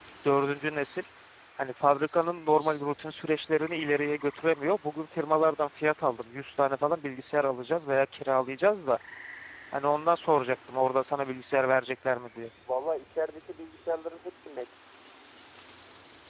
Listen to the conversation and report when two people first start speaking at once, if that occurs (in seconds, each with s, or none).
none